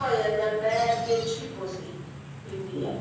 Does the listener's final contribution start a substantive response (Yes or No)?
No